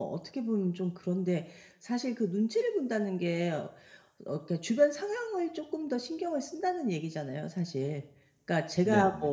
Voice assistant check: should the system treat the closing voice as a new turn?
No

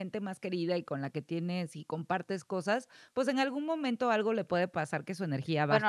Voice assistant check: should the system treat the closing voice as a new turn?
Yes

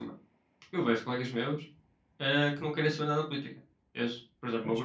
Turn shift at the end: No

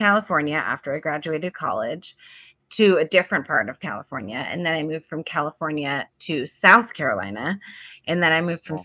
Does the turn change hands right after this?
No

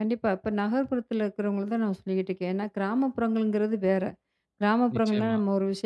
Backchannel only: Yes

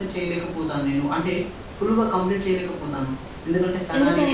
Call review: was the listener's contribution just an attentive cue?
Yes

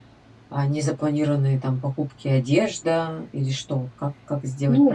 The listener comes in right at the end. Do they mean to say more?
Yes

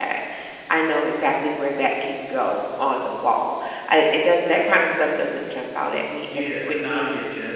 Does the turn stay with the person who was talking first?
No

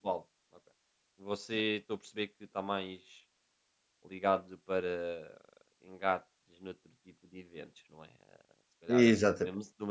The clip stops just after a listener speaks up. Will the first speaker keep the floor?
Yes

